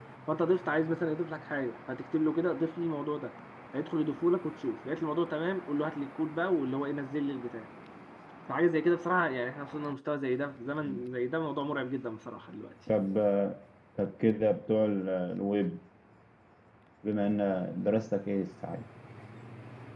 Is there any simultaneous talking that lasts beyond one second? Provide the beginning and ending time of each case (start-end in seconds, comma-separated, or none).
none